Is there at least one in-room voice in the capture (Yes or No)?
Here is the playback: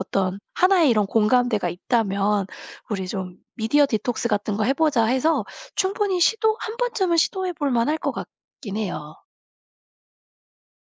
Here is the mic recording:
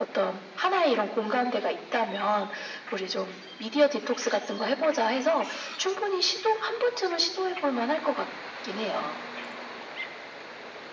No